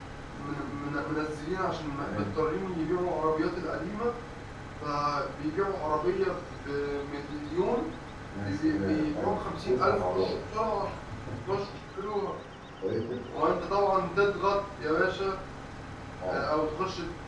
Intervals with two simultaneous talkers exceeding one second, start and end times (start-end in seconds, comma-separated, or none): 8.4-10.4